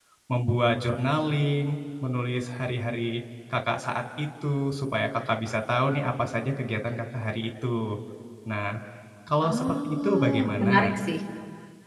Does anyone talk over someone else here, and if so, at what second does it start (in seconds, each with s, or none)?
9.4 s